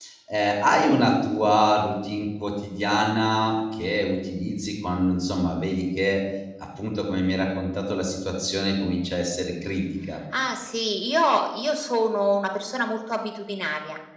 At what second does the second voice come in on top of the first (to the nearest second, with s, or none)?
none